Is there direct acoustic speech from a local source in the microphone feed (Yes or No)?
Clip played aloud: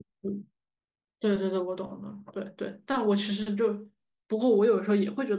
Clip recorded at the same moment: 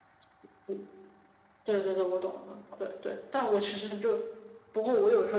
No